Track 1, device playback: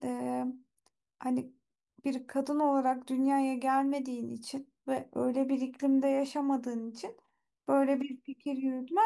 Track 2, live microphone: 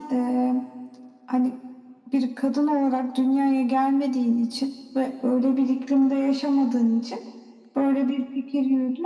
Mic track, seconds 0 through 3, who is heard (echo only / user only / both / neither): echo only